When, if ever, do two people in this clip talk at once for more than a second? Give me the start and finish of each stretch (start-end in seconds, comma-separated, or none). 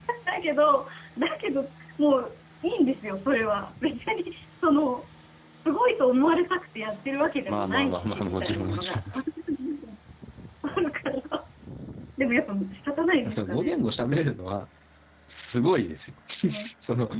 7.5-9.0